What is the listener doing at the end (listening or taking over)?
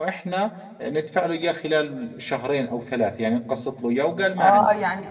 taking over